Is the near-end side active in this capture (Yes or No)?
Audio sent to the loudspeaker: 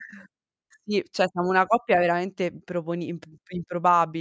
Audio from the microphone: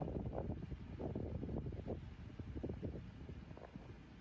No